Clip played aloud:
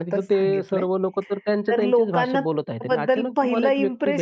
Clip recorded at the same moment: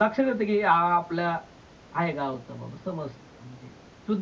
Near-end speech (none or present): present